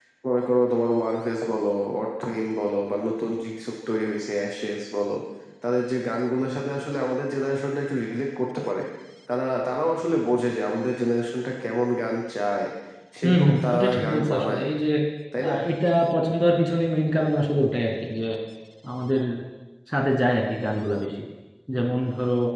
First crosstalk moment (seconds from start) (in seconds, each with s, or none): 13.2 s